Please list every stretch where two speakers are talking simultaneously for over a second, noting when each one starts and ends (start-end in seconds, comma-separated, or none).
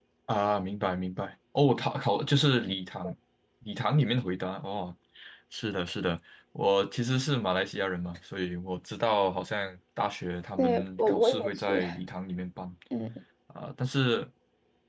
10.6-11.8